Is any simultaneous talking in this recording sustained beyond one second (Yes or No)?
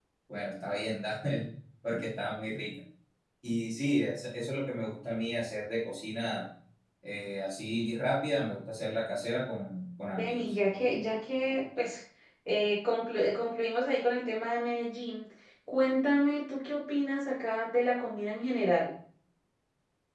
No